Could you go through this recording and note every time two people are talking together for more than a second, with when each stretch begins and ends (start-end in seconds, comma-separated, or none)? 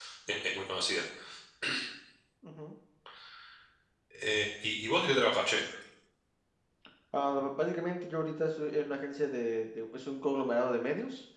none